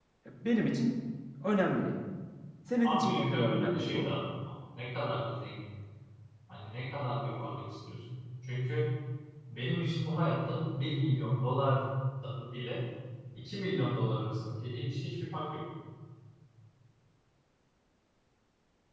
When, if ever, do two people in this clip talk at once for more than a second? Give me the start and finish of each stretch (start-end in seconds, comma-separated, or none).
2.8-4.1